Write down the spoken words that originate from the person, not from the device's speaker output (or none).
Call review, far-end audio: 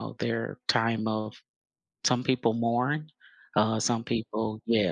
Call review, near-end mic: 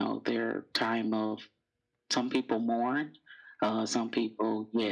none